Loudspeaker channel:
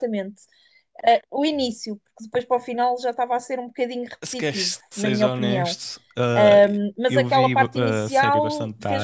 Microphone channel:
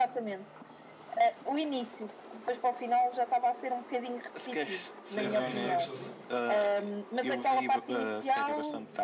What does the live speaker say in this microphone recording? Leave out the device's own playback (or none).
Já viste tudo?